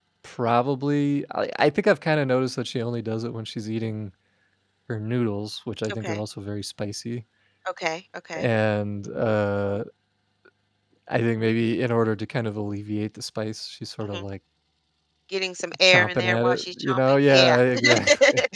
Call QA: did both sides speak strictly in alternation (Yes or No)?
No